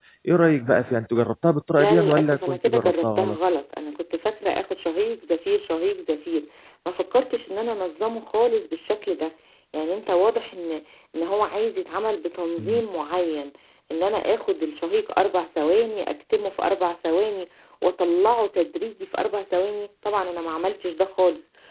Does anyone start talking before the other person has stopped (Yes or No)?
Yes